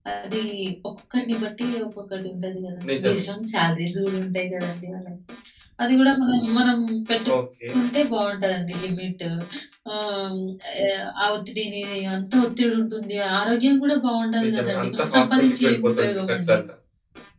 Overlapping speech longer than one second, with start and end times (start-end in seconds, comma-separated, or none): 14.4-16.6